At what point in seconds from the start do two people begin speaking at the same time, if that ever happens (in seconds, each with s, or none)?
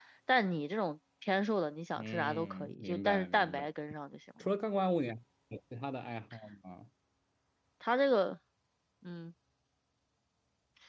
2.0 s